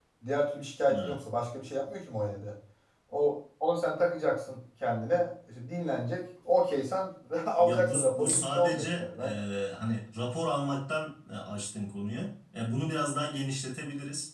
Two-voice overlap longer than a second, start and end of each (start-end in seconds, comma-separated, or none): 7.6-9.2